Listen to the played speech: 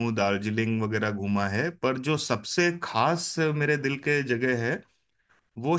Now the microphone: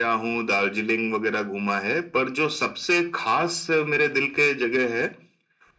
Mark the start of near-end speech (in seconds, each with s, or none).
none